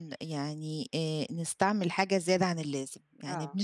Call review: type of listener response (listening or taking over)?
listening